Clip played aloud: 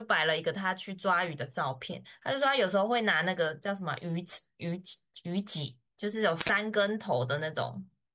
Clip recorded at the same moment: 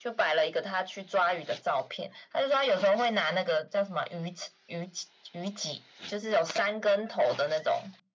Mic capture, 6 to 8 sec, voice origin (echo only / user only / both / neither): echo only